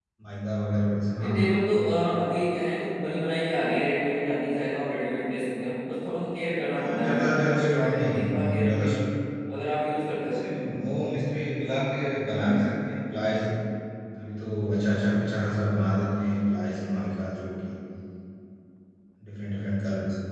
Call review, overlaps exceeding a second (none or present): present